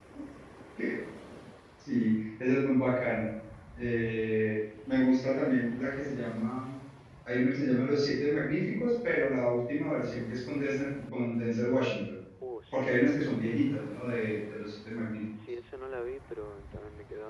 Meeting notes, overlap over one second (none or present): none